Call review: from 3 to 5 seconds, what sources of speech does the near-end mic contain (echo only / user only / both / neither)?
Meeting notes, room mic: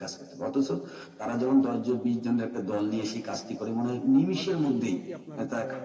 both